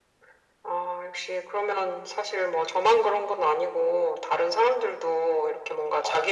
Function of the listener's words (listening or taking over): listening